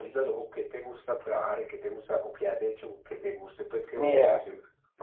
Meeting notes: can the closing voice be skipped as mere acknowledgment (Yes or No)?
No